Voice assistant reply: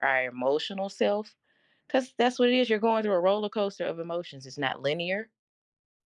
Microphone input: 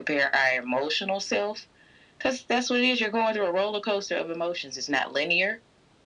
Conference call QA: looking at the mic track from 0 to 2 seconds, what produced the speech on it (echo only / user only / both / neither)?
echo only